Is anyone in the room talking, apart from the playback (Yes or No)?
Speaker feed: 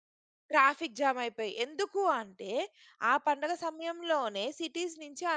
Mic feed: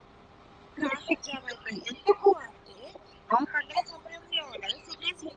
No